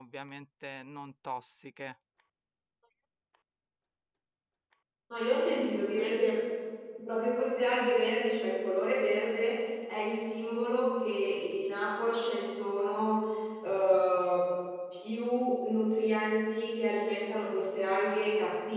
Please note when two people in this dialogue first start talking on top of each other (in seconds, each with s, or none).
none